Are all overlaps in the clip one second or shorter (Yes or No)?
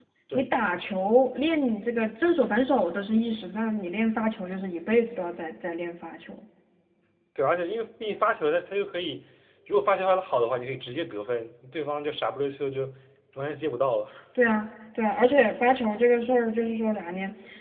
Yes